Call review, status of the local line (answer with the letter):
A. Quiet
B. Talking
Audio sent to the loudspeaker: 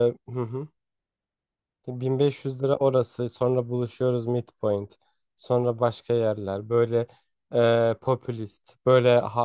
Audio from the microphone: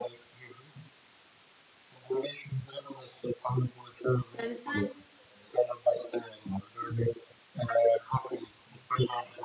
B